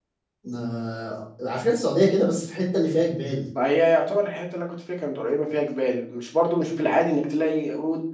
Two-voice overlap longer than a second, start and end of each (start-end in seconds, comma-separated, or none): none